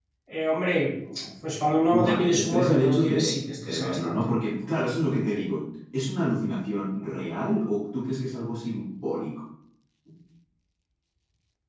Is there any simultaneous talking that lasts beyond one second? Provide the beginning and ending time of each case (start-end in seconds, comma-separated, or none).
1.7-4.3